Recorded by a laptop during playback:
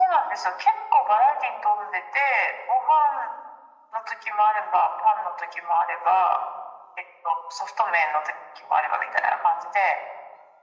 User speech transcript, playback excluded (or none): none